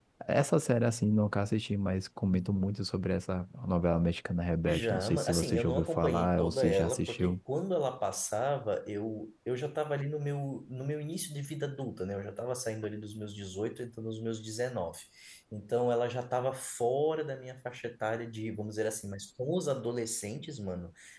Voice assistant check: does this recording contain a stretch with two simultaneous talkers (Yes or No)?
Yes